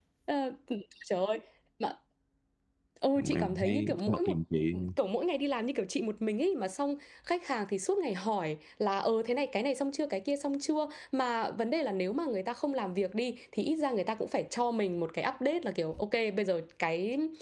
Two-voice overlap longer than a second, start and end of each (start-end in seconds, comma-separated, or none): 3.1-4.4